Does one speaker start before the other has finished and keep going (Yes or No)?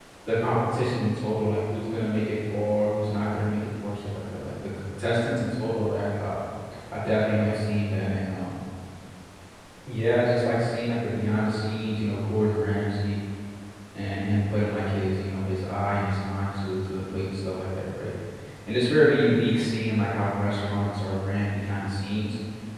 No